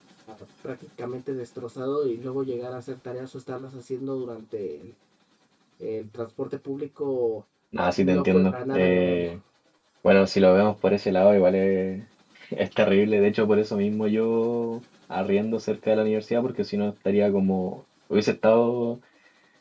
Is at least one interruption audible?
Yes, from 8.0 s

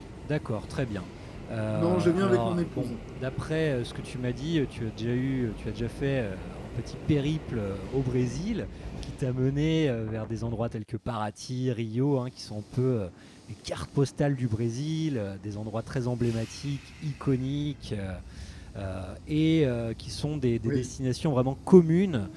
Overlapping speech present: Yes, from 1.7 s

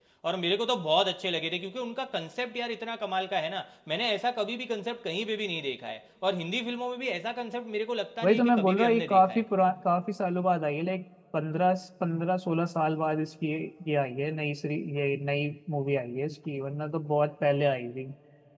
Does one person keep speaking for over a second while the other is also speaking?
Yes, from 8.2 s

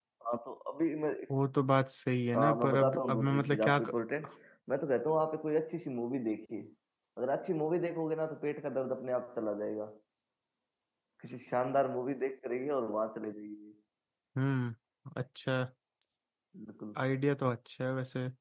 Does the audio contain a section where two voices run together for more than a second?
Yes, from 2.3 s

